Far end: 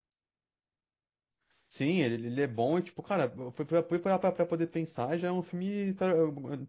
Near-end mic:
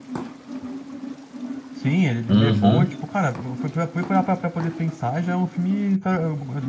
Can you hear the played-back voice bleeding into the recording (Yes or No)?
Yes